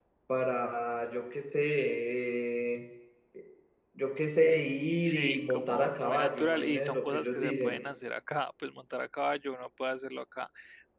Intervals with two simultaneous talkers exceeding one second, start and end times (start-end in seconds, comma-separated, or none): 5.0-7.8